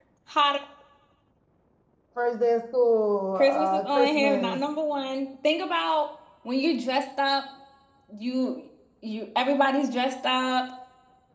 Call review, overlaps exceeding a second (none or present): present